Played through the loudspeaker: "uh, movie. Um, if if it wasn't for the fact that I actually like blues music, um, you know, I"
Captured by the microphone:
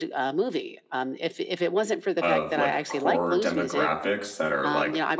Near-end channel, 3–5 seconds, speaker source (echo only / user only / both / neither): both